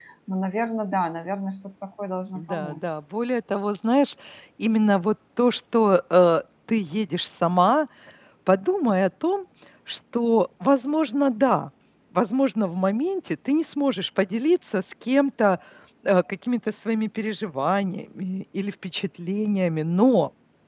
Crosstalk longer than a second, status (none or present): none